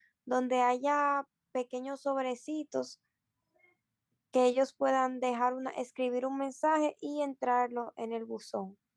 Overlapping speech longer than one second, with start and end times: none

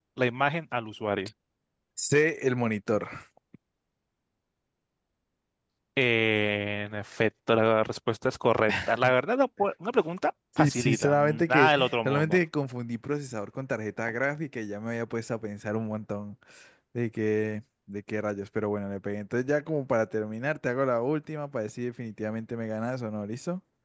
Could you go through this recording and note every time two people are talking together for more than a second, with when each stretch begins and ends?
10.6-12.4

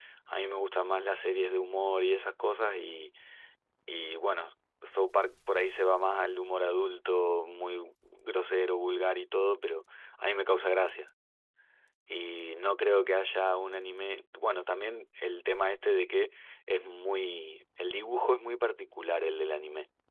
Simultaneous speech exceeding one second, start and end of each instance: none

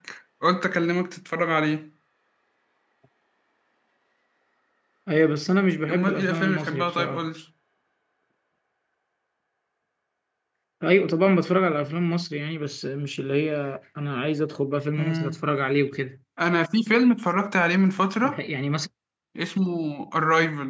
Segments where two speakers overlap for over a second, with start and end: 5.9-7.3

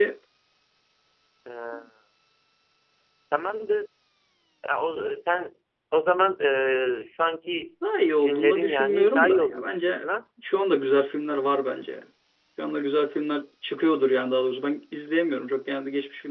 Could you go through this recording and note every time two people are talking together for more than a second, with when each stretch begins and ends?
8.2-10.0

